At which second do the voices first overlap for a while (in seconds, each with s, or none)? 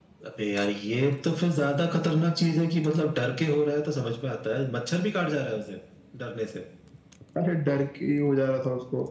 none